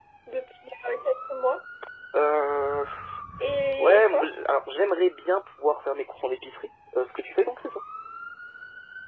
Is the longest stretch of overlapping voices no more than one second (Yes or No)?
Yes